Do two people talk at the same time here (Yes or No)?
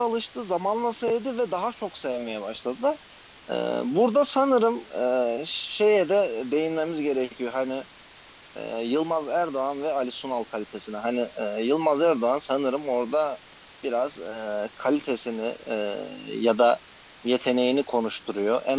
No